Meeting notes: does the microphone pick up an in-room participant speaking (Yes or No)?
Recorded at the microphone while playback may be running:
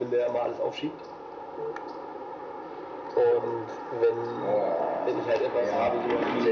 Yes